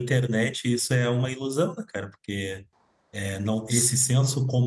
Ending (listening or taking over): listening